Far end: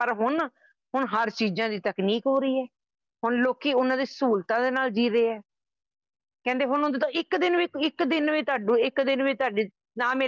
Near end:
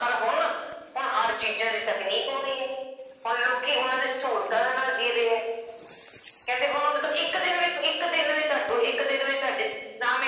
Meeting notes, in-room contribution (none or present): none